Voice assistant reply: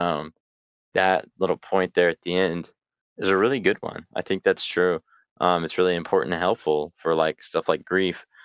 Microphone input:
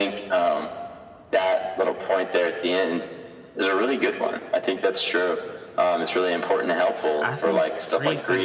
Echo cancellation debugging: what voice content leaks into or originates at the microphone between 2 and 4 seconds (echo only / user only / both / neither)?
echo only